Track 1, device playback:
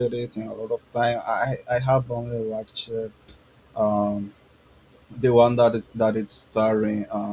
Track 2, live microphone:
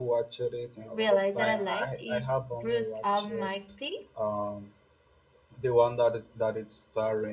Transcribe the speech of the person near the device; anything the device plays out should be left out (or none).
realize that I liked is Bruce Almighty.